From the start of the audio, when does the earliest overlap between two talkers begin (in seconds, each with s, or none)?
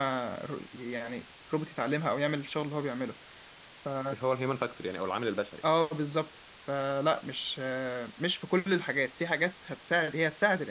none